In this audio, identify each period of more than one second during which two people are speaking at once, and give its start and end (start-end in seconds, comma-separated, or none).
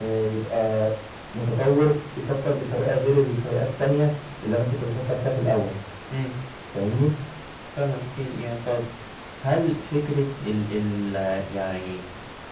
none